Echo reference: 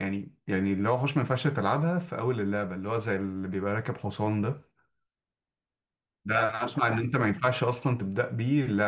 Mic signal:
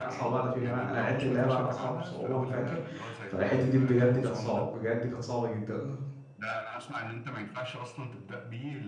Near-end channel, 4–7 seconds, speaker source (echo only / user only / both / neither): both